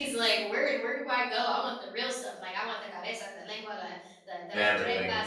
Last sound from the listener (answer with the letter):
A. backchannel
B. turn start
A